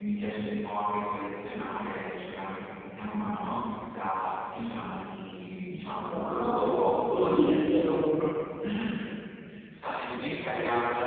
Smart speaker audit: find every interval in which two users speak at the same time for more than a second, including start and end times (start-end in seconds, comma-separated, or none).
6.1-8.1